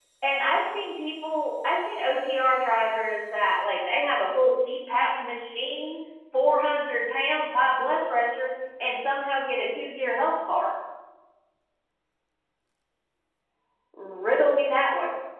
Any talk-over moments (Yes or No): No